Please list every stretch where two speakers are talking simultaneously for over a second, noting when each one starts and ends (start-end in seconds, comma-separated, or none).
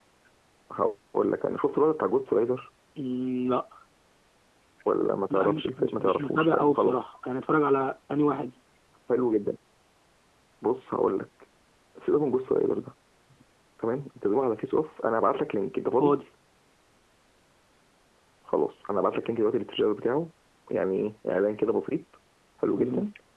5.3-7.1